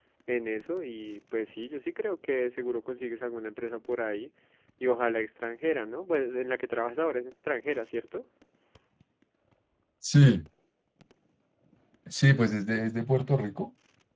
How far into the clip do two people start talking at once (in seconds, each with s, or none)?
none